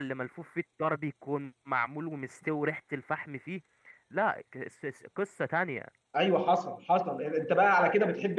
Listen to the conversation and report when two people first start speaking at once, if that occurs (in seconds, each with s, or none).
none